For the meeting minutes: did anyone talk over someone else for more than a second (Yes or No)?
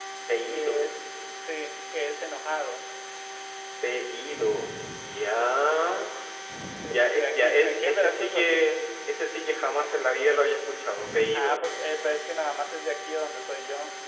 Yes